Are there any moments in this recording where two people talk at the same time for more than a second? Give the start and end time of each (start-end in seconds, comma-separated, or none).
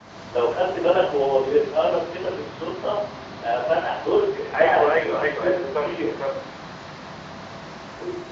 4.5-6.1